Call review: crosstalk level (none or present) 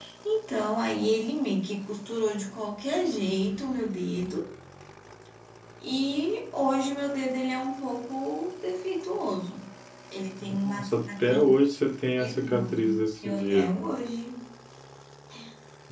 present